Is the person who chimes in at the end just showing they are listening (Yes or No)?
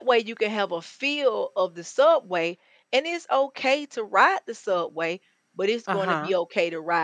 Yes